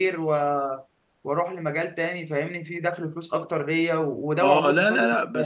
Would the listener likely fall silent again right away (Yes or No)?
No